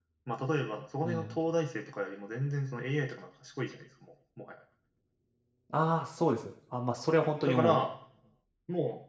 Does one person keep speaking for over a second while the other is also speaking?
No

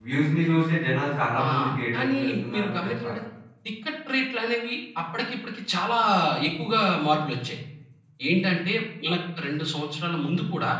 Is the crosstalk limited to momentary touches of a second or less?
No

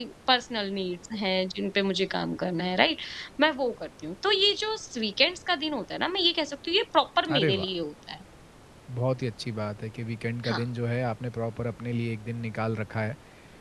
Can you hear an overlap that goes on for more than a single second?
No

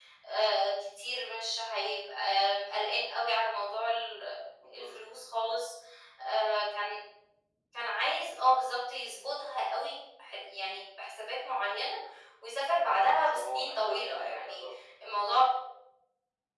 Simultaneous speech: Yes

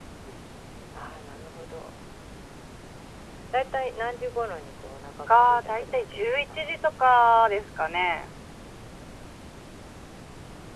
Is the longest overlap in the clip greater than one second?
Yes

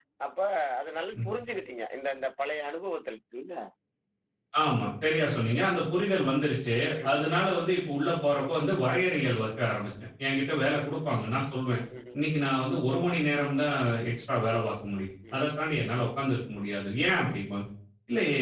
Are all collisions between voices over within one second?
Yes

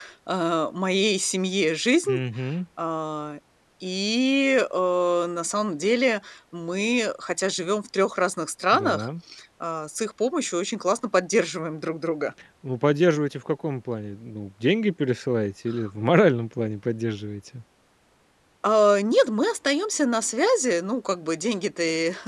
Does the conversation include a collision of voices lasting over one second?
No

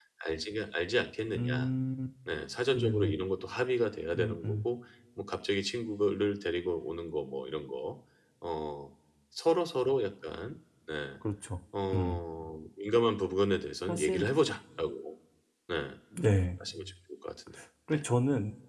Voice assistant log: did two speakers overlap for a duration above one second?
No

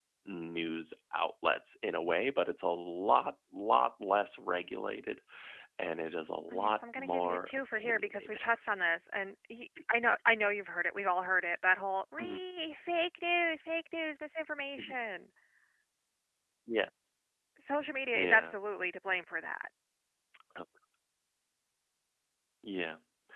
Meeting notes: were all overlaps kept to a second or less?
No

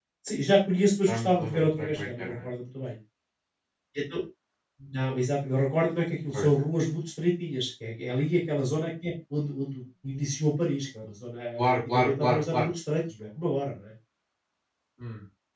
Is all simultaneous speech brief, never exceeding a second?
No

